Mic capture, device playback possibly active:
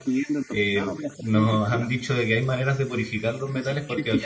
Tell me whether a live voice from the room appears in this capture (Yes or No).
Yes